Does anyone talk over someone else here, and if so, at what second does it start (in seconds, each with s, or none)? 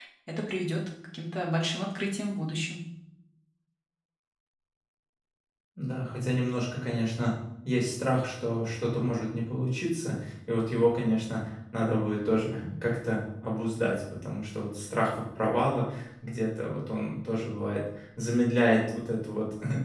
none